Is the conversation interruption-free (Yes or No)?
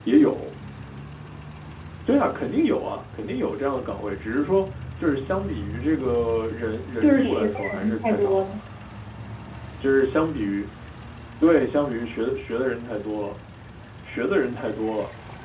No